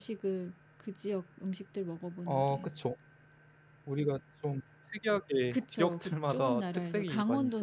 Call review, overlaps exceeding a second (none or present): present